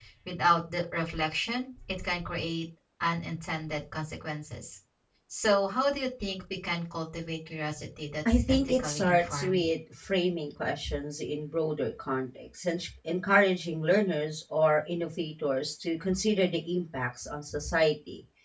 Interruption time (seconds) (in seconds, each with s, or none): 8.2 s